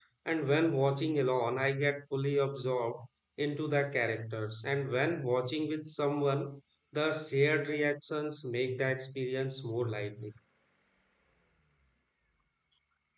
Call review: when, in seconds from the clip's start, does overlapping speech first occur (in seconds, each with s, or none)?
none